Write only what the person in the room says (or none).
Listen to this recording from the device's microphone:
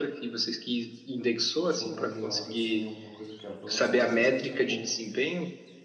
botar de lado, assim, alguma coisa que avança, mesmo que seja pouco.